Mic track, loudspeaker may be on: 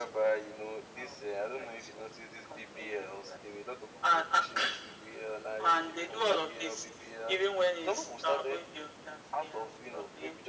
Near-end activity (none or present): none